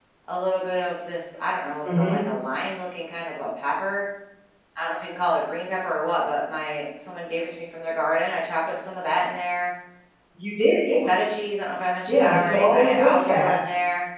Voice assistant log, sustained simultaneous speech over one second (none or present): present